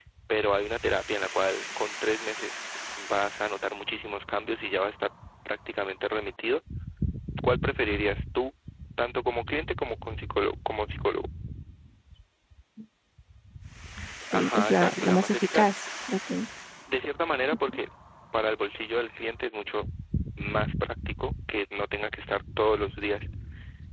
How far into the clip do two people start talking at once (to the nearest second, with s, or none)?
14 s